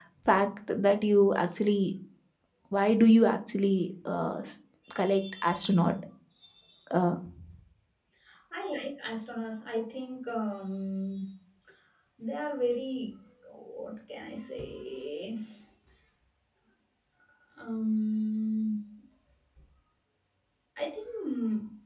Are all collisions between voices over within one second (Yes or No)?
Yes